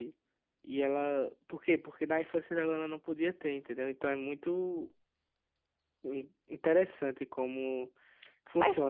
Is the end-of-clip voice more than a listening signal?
Yes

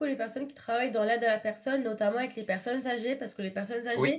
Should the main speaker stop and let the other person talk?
No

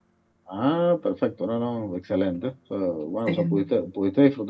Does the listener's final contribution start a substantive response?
No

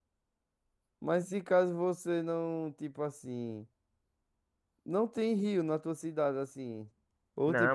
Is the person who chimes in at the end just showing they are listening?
No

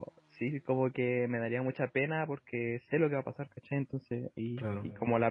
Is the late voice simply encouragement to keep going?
Yes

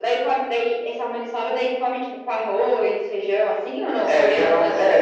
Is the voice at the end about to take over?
Yes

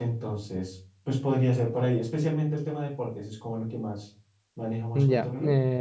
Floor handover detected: Yes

